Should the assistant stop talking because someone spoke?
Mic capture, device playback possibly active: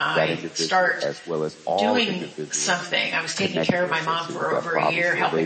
Yes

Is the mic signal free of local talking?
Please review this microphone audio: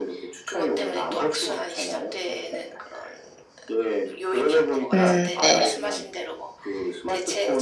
No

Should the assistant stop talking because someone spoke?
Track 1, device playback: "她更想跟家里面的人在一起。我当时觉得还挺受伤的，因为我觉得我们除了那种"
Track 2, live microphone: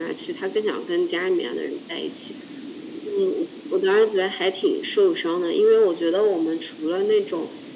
No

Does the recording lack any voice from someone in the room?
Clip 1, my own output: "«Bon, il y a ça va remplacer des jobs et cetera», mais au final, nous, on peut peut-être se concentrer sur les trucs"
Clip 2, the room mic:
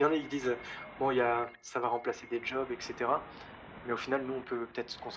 Yes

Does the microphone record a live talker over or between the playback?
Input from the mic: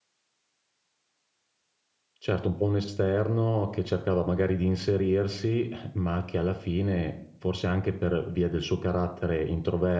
Yes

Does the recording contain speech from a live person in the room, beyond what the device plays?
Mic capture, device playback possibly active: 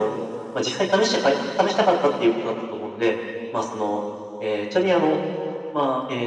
No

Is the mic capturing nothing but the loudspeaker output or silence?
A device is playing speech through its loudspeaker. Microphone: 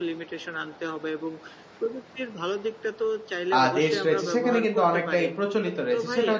No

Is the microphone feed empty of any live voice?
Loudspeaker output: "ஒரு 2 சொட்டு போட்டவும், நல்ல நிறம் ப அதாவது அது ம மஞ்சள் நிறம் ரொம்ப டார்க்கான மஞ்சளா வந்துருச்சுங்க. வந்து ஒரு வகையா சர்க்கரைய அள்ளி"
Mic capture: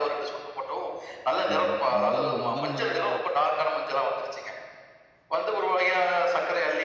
No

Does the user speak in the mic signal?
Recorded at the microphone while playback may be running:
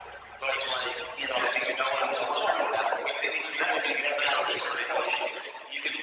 No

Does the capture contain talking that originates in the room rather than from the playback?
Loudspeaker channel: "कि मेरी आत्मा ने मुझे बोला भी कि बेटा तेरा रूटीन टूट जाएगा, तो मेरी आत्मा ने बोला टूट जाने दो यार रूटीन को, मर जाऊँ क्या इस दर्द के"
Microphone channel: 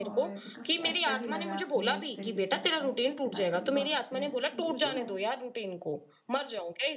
Yes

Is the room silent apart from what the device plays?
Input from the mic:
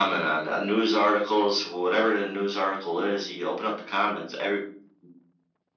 Yes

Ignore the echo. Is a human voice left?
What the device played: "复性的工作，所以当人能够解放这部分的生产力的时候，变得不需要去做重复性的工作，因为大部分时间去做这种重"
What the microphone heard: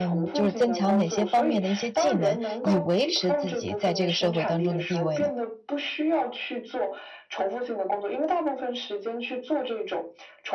Yes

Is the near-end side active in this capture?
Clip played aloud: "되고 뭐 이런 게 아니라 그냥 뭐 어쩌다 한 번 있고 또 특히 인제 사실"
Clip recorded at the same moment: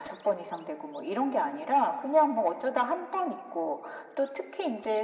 No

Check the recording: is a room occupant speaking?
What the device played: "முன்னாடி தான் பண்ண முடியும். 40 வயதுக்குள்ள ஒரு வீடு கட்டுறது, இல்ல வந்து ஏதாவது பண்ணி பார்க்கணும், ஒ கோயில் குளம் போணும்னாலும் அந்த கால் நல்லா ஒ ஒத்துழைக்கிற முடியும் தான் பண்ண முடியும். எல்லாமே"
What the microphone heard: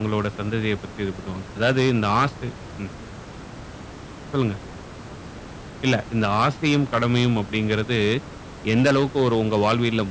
Yes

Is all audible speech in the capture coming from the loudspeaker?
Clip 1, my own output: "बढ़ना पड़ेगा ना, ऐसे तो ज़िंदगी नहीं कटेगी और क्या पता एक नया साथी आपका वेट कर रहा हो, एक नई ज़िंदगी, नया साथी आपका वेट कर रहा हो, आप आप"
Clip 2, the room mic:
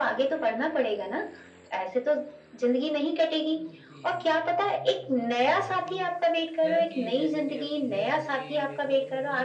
No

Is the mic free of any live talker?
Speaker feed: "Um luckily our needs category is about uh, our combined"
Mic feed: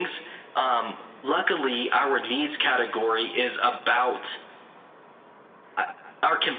Yes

